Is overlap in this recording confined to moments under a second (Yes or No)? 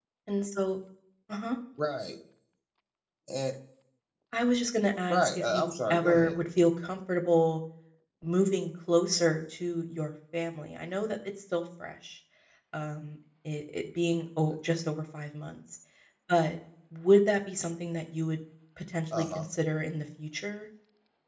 No